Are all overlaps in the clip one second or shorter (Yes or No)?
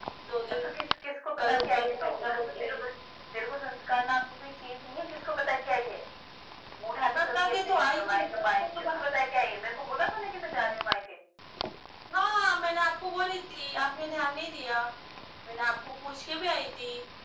No